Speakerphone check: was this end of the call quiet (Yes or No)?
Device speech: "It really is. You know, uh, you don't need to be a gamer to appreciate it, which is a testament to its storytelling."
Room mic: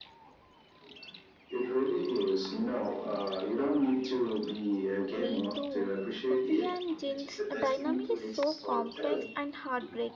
No